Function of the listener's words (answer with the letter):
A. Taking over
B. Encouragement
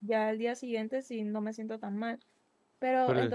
B